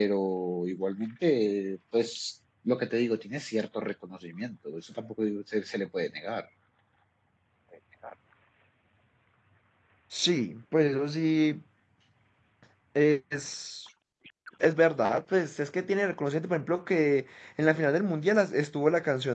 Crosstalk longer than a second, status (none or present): none